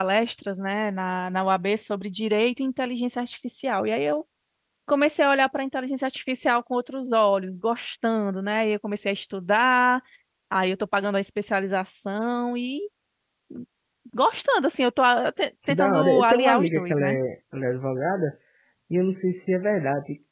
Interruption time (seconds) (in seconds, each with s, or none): 15.7 s